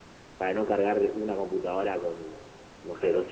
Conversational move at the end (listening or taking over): listening